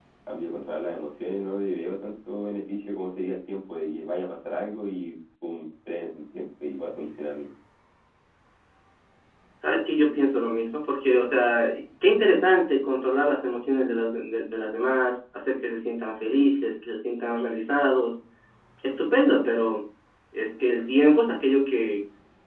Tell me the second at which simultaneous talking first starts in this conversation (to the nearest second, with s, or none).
none